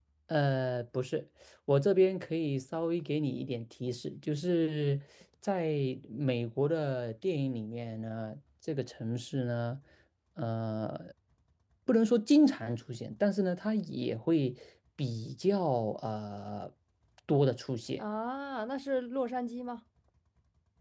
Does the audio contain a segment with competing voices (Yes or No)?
No